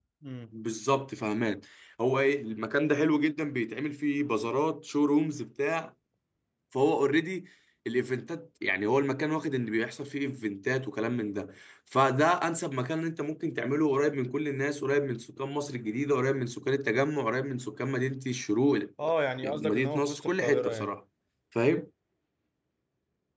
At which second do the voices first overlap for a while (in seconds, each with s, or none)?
19.4 s